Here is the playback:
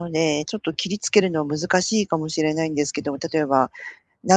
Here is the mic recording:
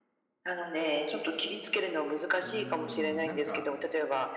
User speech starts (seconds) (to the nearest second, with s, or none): 2 s